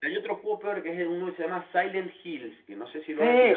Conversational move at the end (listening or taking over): taking over